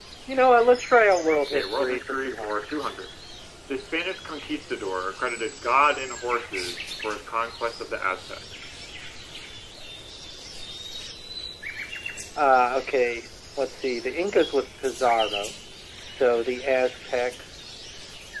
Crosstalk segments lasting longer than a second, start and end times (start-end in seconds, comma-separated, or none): 1.2-2.7